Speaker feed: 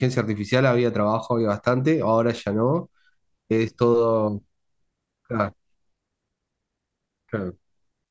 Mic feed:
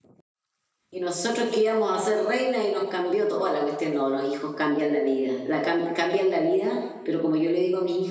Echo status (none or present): none